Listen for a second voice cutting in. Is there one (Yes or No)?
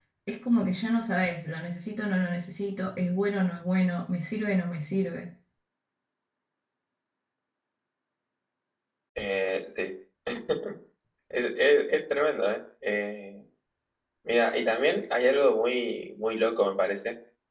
No